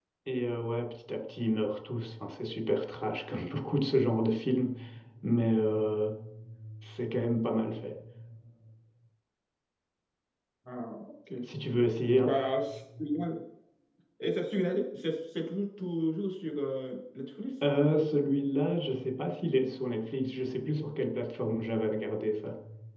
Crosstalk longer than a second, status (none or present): none